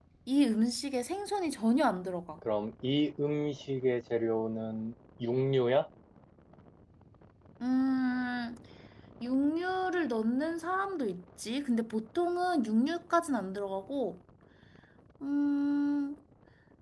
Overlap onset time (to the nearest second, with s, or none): none